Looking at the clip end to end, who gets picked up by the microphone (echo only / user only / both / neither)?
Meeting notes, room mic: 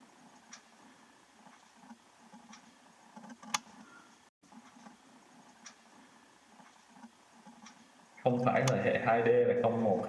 user only